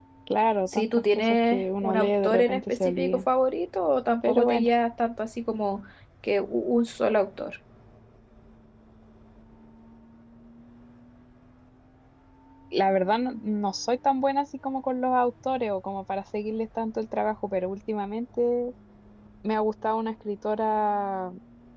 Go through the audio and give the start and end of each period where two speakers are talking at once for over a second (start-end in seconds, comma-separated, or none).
0.7-3.2